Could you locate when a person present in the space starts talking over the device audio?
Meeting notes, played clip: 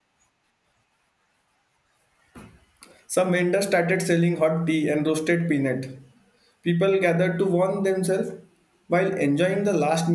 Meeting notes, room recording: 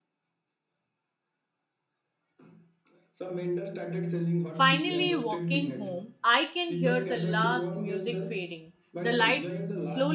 4 s

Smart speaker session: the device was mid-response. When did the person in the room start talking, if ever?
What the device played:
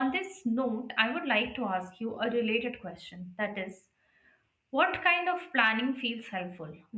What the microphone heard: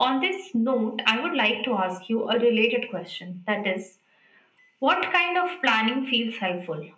none

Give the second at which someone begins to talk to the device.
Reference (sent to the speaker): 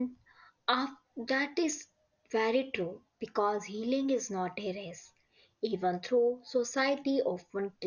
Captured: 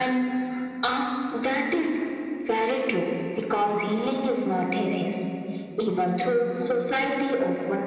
none

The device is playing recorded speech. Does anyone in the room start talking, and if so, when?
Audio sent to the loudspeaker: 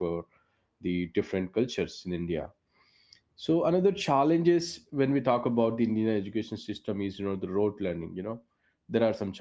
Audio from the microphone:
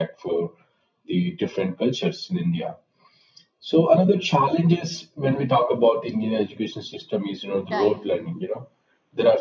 8 s

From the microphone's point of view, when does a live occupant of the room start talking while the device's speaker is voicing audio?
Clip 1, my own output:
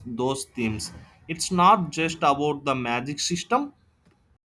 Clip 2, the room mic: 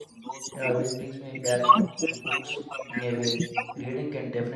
1 s

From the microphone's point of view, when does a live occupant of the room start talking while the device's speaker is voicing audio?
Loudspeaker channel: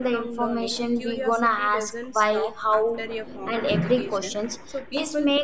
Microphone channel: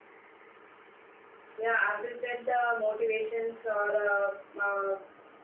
2 s

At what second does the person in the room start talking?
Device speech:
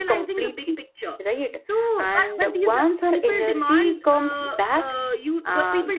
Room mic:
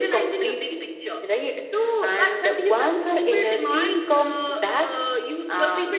none

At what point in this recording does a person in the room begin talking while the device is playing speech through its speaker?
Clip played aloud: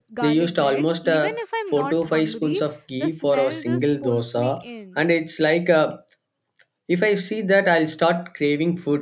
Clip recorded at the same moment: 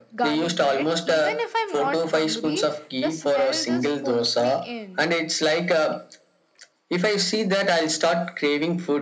none

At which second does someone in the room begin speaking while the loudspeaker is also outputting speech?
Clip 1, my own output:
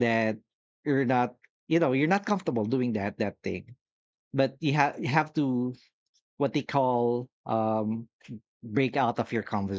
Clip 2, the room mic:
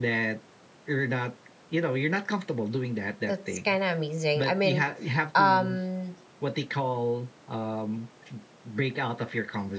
3 s

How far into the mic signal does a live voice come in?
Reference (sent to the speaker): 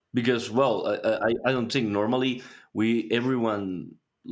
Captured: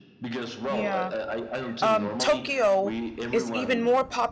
1 s

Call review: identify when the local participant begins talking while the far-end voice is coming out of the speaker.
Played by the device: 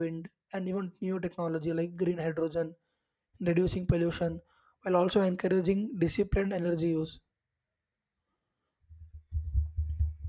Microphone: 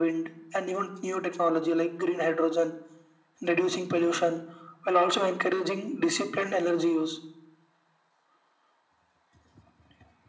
none

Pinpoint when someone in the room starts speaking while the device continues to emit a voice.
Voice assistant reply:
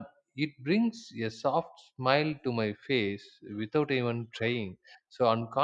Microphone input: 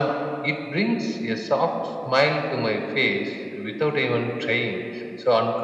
none

